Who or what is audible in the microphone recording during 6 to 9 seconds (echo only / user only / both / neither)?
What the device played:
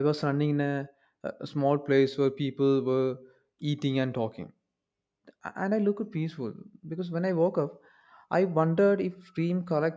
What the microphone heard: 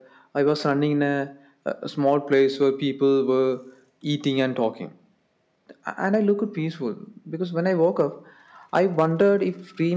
echo only